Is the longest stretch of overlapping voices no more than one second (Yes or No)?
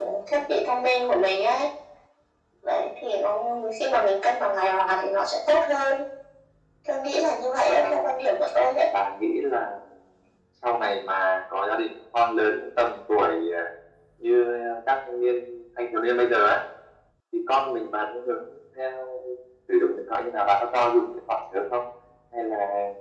Yes